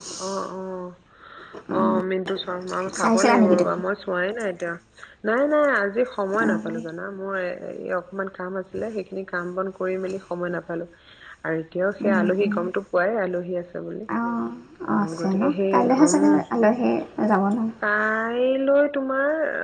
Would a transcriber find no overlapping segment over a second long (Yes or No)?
No